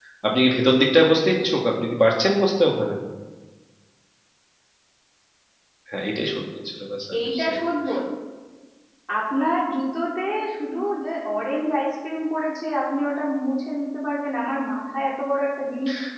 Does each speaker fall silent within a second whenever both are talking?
Yes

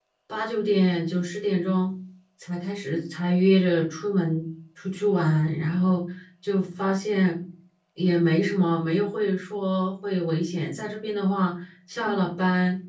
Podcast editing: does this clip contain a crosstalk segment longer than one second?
No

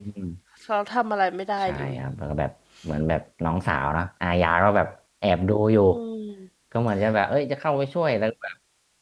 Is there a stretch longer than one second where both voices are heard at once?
No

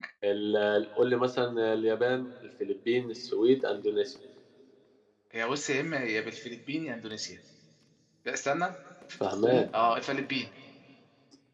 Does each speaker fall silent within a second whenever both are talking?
Yes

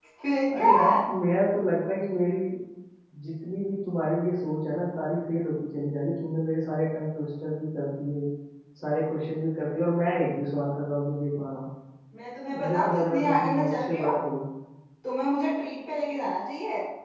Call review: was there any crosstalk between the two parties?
Yes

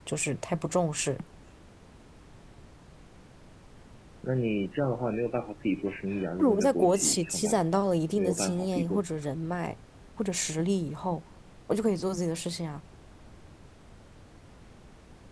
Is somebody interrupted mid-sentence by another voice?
Yes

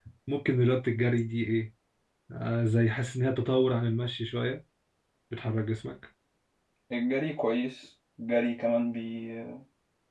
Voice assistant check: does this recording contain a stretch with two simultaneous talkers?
No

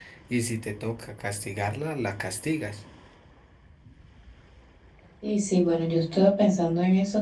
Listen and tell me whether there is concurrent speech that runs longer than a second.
No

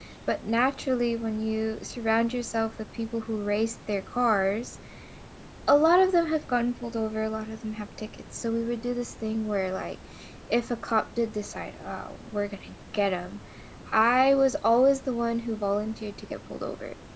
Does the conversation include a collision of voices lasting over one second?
No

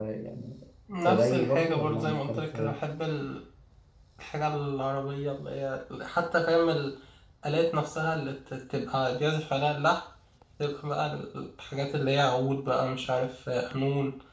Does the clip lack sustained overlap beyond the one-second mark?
No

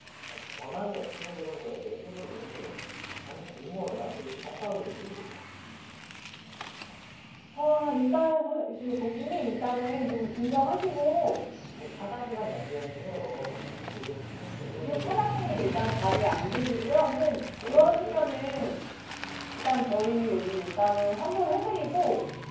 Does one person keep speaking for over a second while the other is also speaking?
Yes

